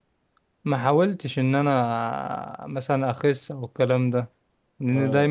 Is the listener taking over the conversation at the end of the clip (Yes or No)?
No